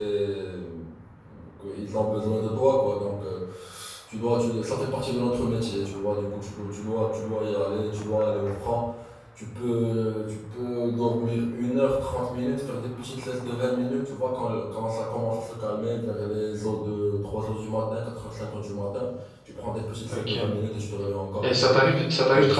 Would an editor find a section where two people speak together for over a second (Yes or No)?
No